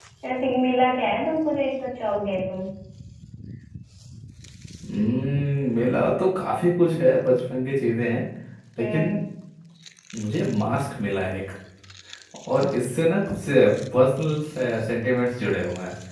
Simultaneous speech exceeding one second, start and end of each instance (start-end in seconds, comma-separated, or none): none